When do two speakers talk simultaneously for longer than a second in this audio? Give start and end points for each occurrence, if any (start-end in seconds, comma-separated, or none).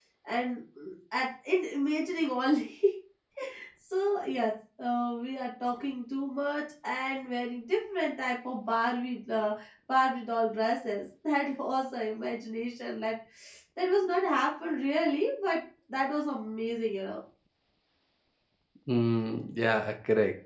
none